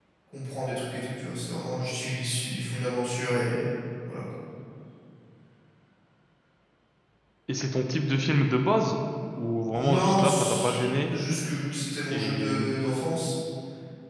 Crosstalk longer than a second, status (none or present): present